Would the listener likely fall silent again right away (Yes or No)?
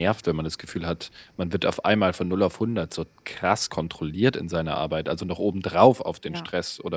Yes